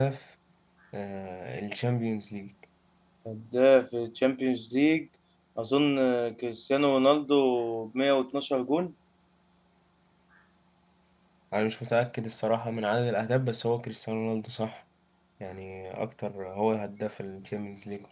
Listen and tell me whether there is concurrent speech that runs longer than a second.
No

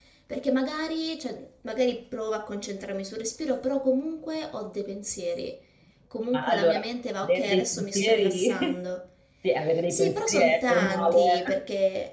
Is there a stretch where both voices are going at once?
Yes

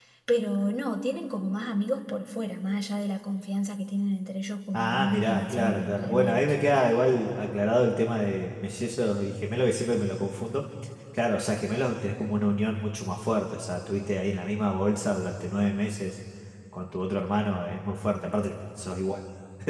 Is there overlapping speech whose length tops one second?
Yes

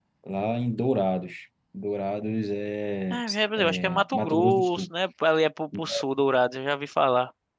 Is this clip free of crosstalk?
No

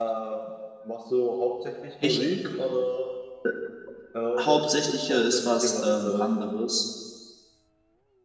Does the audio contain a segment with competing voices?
Yes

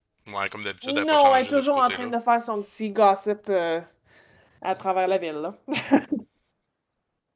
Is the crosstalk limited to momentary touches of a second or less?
No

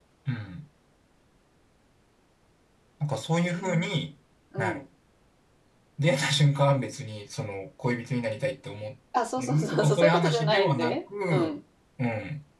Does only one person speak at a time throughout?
No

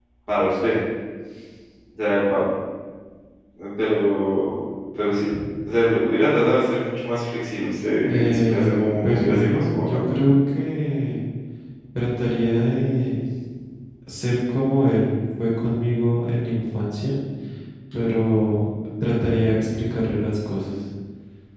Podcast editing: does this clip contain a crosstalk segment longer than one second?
Yes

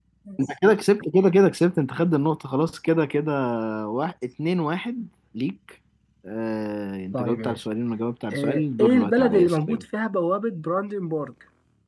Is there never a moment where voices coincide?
No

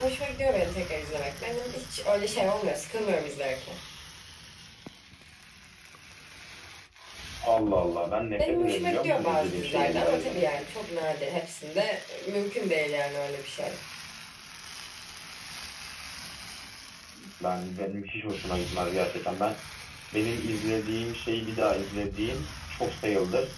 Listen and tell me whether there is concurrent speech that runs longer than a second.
Yes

